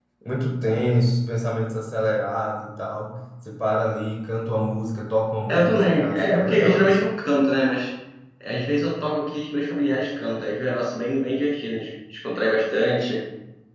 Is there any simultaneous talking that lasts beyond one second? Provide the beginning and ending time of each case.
5.5-7.0

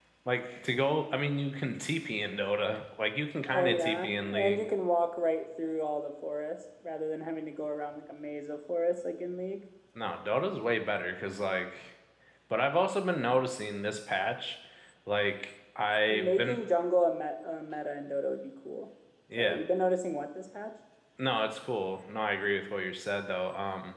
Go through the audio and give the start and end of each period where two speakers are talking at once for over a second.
3.5-4.7

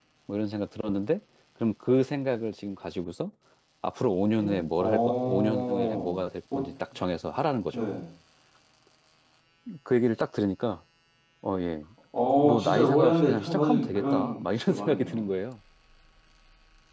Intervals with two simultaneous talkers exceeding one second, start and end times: 4.4-6.2, 12.4-15.2

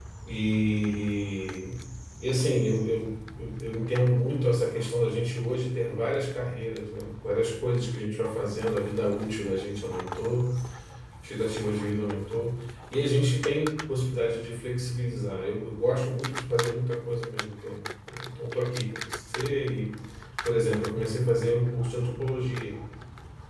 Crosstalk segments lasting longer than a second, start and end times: none

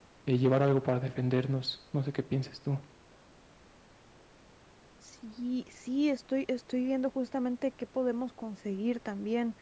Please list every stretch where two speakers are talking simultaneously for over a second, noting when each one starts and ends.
none

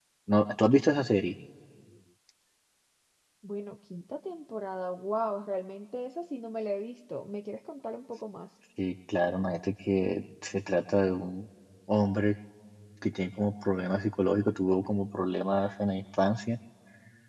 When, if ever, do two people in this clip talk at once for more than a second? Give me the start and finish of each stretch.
none

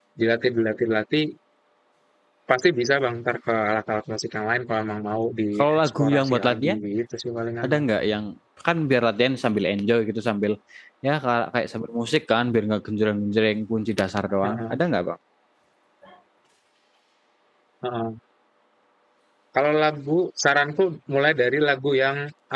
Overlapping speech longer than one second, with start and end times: 5.6-6.8

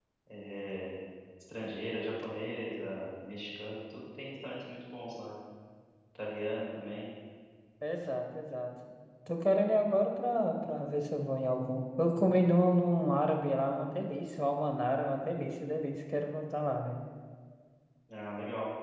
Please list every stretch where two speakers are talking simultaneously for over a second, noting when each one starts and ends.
none

